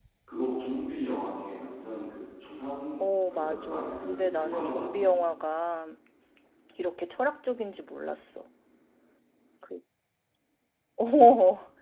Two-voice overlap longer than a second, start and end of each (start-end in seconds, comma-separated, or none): 3.0-5.1